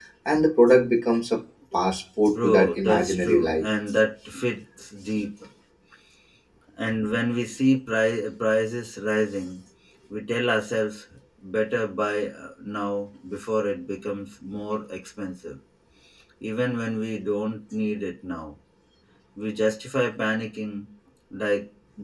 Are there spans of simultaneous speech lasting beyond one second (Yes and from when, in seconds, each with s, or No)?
Yes, from 2.3 s